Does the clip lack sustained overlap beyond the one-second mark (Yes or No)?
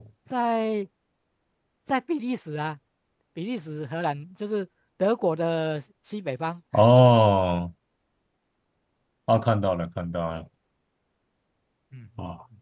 Yes